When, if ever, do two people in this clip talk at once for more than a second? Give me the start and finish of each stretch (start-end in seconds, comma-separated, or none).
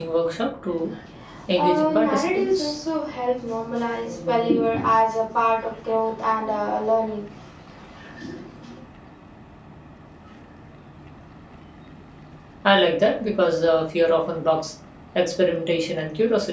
1.6-2.8